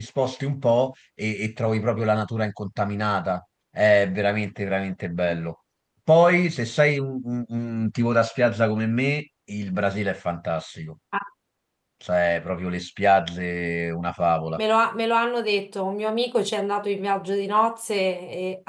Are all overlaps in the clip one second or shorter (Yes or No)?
Yes